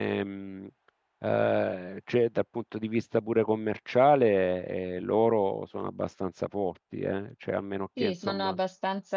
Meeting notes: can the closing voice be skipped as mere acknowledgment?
No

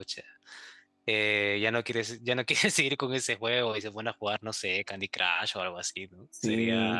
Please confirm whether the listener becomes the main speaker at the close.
Yes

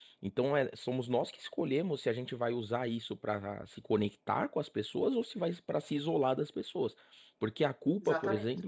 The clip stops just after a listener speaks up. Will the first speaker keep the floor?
Yes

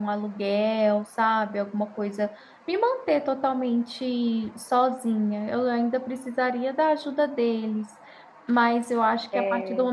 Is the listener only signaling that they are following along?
Yes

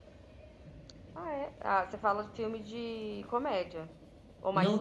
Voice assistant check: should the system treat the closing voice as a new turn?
Yes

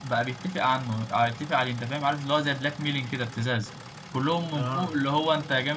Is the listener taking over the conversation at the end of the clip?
No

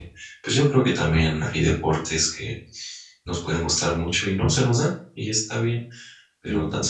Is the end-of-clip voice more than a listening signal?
No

